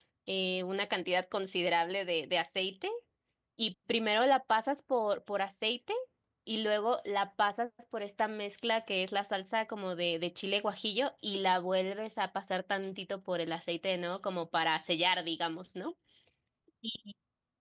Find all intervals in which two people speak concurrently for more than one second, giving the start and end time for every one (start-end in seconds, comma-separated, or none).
none